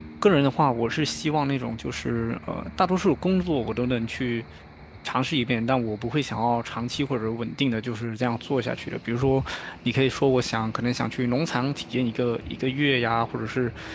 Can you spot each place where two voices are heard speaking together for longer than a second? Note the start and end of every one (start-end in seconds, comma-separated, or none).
none